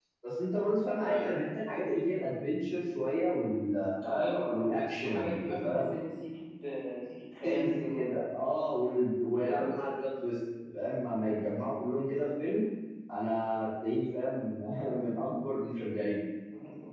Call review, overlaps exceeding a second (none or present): present